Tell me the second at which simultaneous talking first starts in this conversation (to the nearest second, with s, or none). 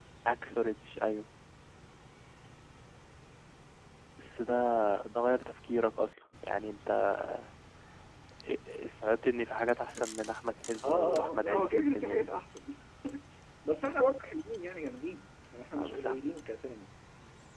11 s